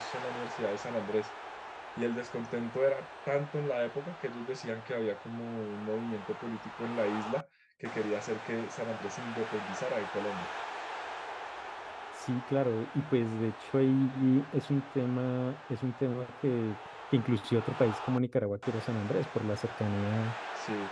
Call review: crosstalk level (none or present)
none